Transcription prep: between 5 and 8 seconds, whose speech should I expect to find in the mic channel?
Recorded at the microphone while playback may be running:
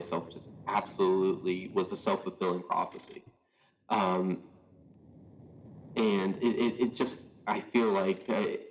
echo only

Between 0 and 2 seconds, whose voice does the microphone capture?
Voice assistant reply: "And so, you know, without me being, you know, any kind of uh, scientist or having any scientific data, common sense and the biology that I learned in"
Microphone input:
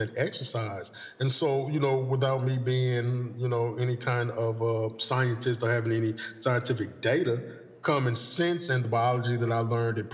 echo only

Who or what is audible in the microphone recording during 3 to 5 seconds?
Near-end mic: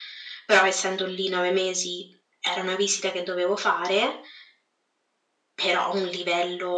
echo only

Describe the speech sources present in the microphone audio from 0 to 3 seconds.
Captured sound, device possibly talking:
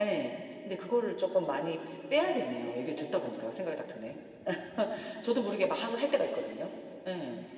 echo only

